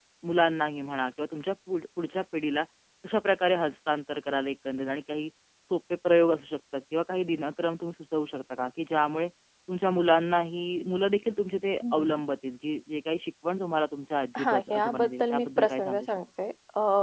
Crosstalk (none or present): present